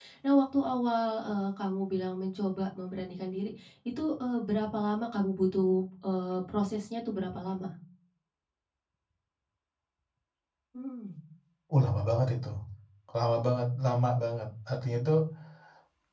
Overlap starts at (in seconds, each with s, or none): none